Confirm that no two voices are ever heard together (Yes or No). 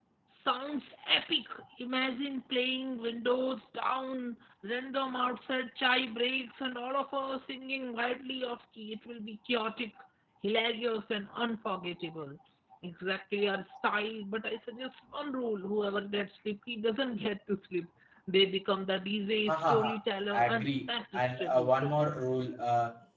No